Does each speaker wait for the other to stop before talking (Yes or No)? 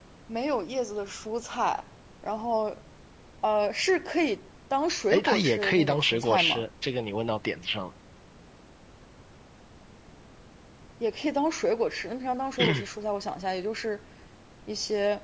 No